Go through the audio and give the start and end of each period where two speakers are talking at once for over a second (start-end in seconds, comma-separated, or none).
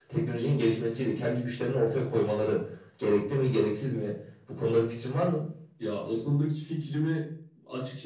none